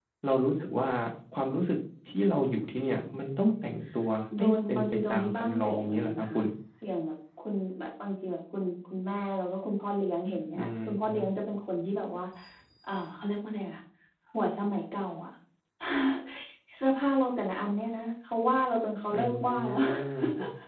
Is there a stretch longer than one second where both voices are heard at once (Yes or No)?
Yes